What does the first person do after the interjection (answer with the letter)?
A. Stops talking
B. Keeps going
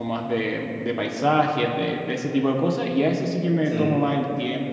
B